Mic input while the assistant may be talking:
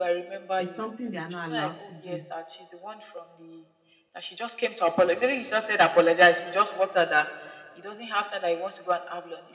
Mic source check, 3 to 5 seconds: echo only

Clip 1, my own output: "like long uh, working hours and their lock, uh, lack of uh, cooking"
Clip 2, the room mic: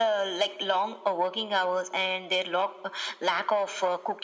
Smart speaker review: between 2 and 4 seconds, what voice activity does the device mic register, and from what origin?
echo only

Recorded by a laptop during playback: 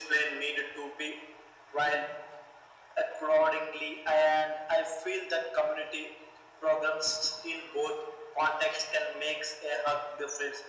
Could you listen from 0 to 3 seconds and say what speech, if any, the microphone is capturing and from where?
echo only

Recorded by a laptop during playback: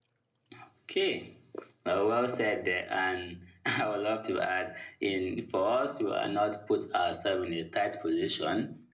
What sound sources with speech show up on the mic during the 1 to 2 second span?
echo only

